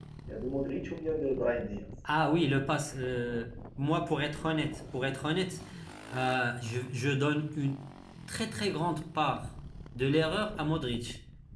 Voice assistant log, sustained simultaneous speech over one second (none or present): none